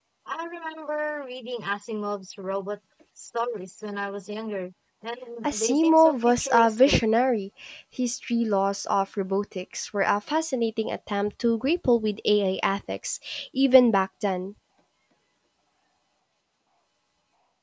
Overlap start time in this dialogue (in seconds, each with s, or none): 5.4 s